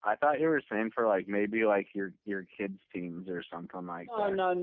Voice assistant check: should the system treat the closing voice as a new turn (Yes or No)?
Yes